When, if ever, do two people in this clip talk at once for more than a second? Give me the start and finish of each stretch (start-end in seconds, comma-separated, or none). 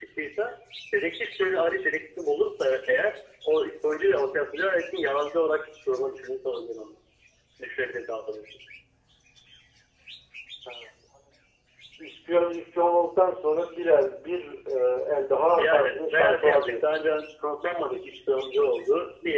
15.6-17.0